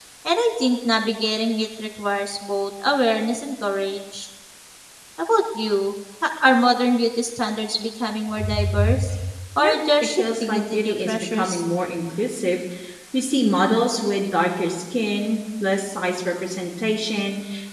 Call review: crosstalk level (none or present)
present